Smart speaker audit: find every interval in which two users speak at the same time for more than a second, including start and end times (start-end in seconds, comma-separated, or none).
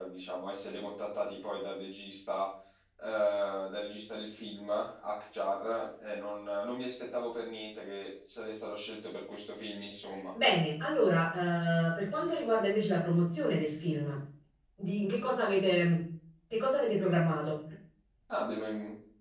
none